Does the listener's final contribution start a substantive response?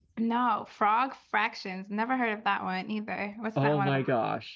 Yes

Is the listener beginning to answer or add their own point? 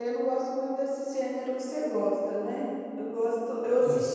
No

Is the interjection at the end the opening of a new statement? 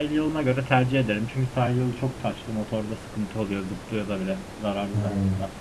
Yes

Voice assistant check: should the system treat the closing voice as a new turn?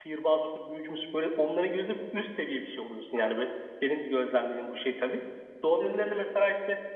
No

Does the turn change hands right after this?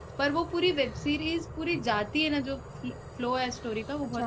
Yes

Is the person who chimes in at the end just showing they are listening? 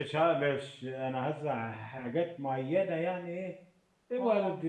Yes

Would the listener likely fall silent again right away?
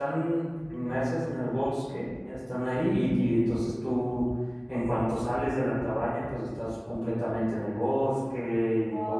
No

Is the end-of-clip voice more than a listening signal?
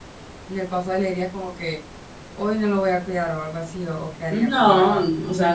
Yes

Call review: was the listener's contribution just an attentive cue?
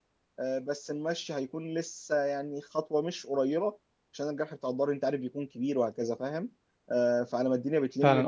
No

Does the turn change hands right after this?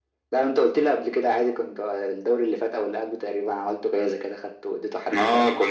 Yes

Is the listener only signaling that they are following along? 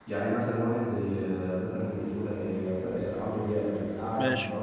Yes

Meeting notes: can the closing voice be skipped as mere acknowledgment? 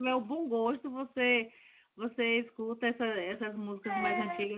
Yes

